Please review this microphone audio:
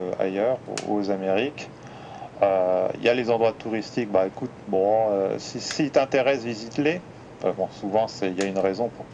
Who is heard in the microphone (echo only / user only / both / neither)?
echo only